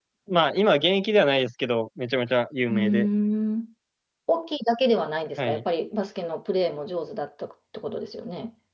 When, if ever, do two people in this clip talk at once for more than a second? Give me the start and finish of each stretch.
none

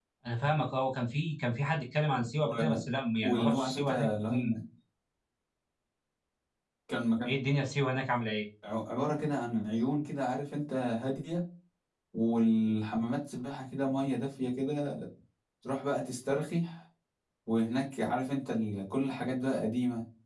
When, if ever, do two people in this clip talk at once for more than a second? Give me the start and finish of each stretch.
3.2-4.5

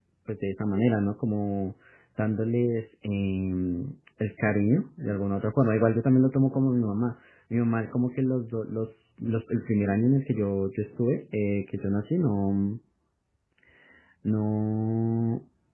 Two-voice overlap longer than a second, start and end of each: none

